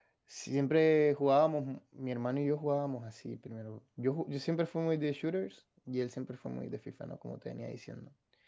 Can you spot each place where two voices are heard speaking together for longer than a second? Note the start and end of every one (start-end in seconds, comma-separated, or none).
none